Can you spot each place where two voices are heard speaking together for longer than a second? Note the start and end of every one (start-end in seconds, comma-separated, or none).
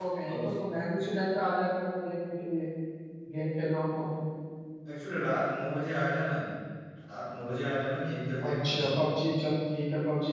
none